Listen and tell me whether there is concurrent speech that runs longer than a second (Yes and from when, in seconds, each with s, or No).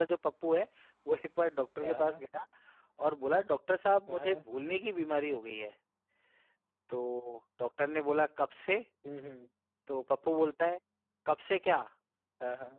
No